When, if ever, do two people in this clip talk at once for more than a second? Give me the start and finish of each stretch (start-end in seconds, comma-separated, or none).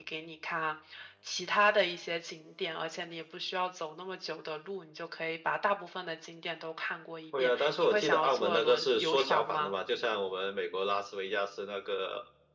7.4-9.7